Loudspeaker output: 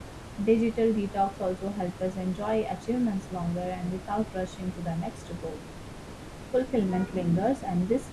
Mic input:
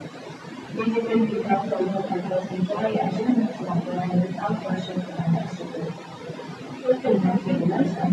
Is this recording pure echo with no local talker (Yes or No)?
Yes